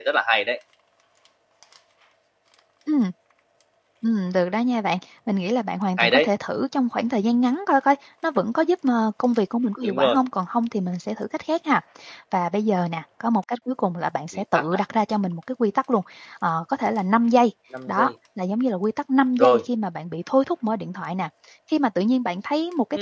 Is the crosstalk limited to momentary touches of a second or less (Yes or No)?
Yes